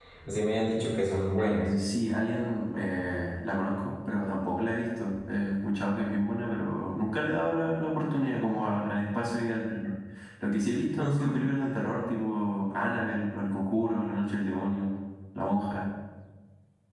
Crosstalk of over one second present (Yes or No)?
No